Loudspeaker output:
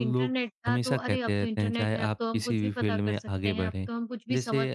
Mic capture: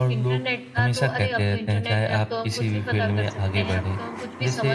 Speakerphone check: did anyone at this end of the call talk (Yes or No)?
No